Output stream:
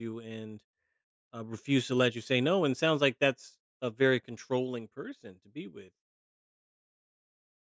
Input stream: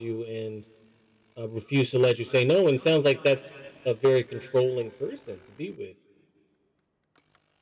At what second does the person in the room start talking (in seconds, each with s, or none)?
none